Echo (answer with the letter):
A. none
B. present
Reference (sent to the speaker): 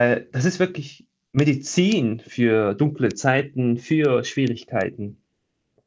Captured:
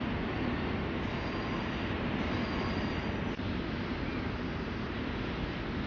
A